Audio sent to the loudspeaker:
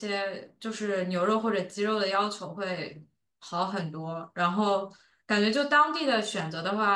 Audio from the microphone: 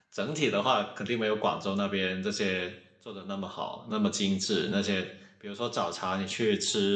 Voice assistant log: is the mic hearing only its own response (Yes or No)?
No